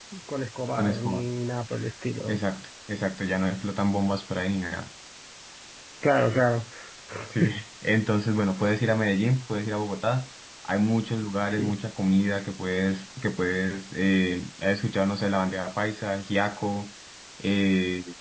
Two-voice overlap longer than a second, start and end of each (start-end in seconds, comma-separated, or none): none